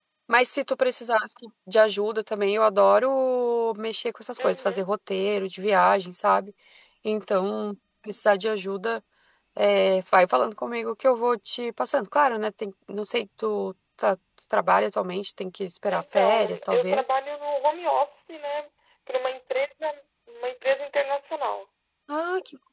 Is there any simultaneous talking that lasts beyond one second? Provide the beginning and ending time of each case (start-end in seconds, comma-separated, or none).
15.9-17.1